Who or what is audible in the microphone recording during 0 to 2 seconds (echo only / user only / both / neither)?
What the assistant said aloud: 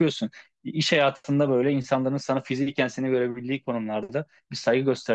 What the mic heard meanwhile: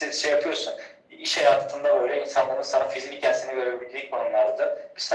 echo only